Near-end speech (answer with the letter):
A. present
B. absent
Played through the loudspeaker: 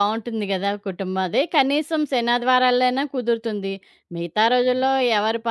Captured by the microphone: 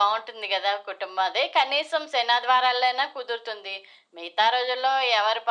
B